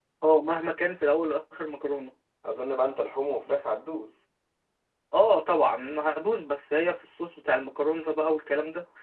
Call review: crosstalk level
none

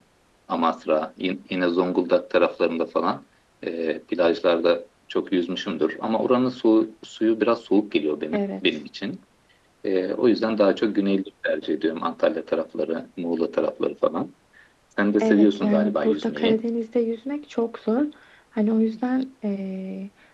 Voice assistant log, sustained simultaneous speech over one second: present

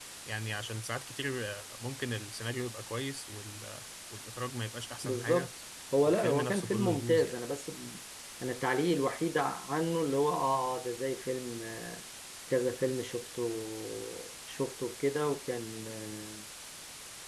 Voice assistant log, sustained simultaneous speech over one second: present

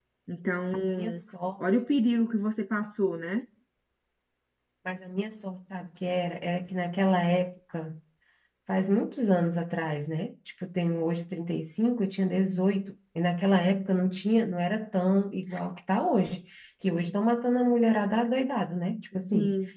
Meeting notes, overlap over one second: none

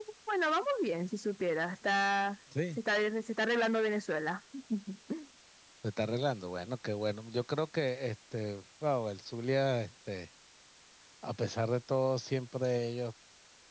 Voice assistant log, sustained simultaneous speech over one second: none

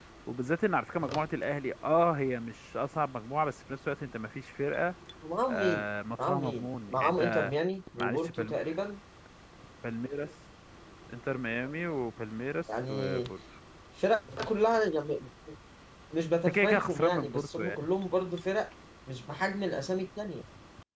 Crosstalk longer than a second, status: present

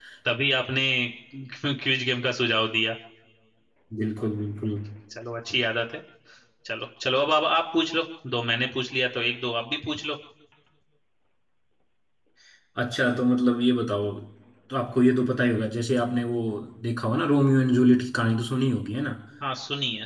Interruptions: none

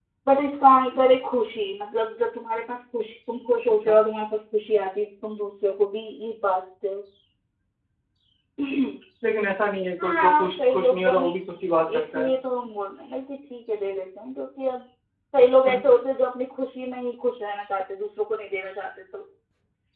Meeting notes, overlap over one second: present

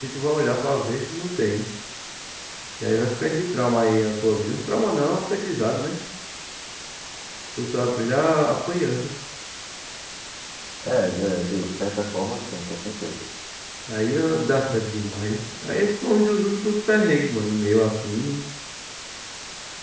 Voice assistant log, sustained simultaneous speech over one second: none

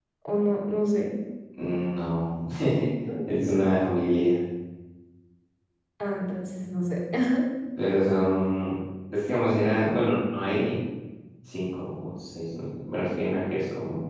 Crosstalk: none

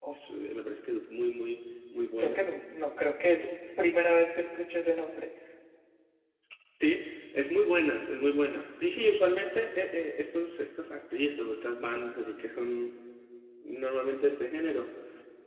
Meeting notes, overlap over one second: none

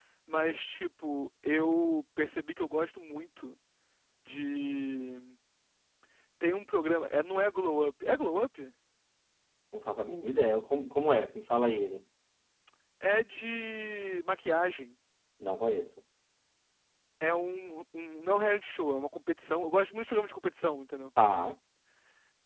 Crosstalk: none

